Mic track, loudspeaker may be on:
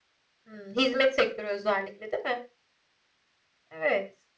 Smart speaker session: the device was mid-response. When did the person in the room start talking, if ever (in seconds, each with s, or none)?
none